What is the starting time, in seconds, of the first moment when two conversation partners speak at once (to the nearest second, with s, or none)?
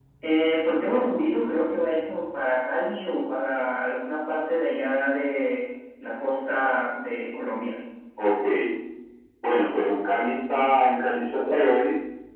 none